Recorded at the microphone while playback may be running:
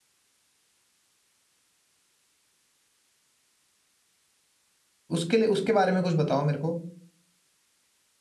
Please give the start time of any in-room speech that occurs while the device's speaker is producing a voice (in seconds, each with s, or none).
5.1 s